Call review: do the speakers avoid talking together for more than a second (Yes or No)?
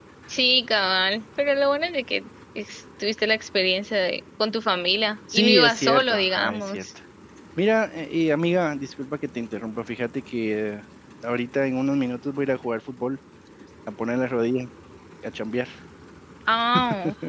No